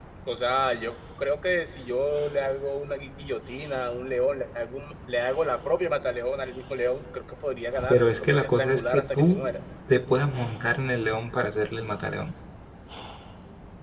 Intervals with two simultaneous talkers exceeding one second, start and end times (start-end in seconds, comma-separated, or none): 7.9-9.4